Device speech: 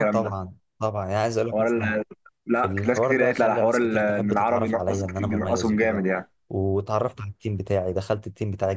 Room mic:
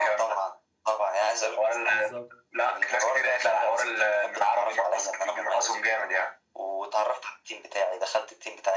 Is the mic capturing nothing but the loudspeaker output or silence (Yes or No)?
No